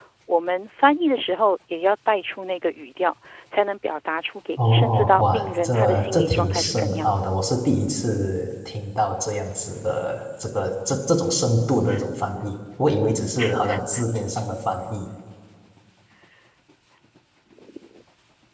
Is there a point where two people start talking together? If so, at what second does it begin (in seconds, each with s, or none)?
4.6 s